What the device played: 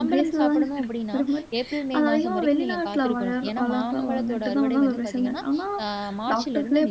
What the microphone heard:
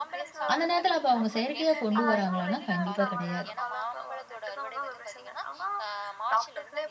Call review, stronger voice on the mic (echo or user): user